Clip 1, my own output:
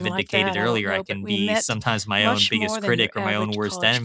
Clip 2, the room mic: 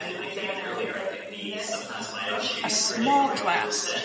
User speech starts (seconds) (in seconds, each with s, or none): 2.6 s